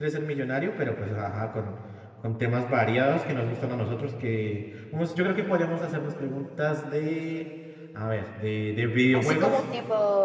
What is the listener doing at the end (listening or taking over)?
taking over